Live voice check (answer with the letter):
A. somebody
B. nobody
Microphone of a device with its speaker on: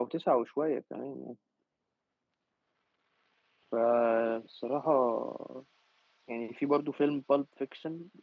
A